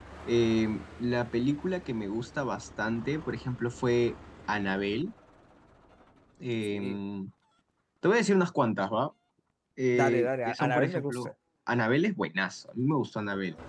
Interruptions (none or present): present